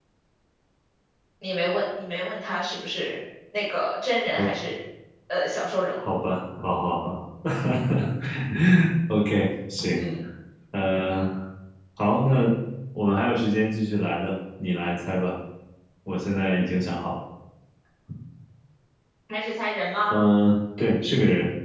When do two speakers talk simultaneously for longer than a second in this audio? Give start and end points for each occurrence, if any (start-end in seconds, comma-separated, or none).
none